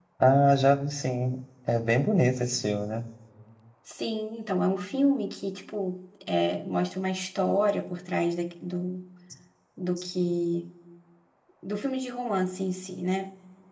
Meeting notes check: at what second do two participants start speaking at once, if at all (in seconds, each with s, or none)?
none